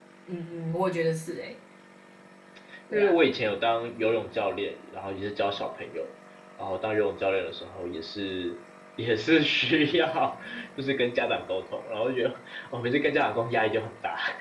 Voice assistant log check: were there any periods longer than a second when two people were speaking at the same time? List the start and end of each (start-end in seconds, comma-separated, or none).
none